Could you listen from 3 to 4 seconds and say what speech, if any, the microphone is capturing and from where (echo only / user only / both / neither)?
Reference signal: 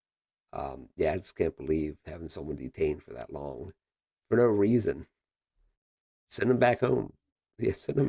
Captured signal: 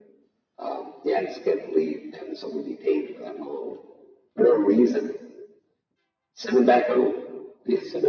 echo only